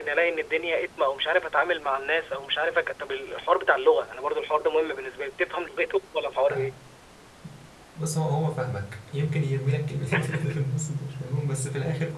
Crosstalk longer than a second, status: none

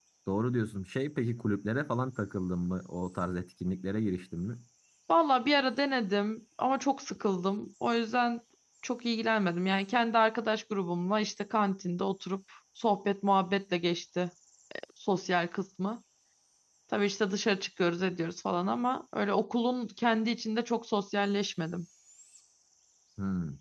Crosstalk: none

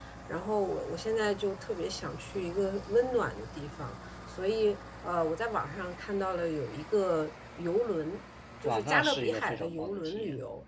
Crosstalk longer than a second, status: present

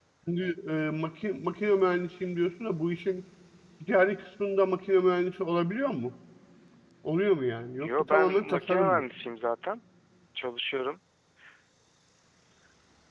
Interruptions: present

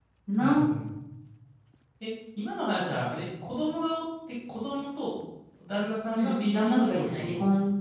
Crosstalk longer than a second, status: present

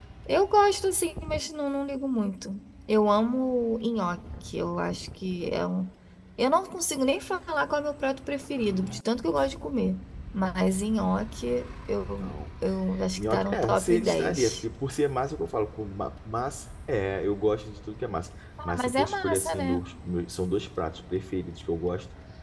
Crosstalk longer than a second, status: present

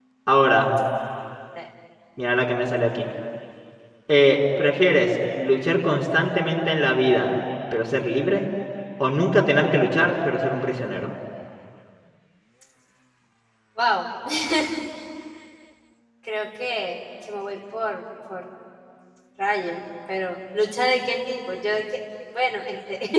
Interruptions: none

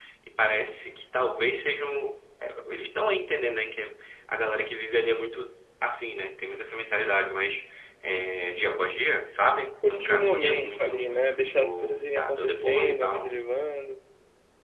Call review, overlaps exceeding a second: present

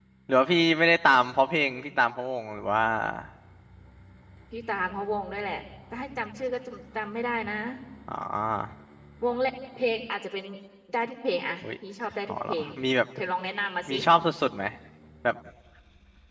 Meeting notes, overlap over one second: none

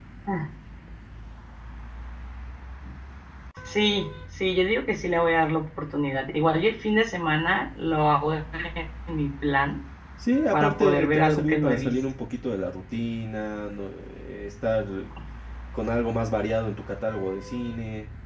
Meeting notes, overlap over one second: present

